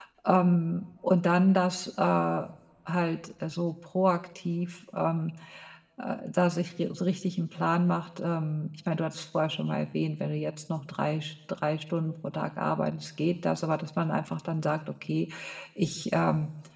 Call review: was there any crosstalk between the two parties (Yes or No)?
No